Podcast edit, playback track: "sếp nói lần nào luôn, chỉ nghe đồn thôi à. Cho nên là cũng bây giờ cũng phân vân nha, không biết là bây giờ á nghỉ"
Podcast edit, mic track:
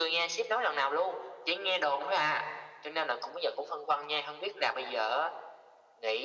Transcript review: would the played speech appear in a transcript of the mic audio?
Yes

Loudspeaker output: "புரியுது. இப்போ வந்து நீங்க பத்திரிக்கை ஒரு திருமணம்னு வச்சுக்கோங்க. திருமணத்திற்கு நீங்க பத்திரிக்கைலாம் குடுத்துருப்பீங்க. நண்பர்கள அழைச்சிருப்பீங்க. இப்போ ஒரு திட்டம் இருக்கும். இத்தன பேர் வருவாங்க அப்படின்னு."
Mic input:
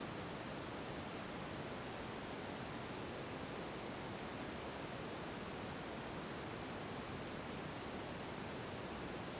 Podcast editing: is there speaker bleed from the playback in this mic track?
No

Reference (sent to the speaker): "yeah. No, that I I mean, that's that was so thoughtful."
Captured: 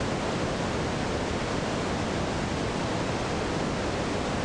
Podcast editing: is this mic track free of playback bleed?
Yes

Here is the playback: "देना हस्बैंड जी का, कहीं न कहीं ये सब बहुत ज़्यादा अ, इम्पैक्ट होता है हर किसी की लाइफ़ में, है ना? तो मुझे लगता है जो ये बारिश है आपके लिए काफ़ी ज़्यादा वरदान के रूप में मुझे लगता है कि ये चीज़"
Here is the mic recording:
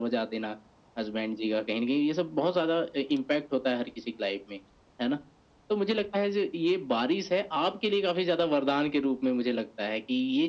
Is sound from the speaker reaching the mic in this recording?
Yes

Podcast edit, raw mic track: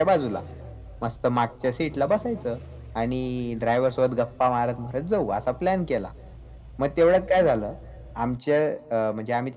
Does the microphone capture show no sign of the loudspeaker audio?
No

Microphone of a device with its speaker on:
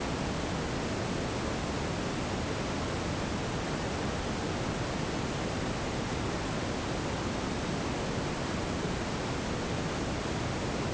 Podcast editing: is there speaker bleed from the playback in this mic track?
No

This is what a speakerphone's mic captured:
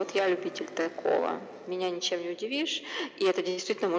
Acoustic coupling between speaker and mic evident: Yes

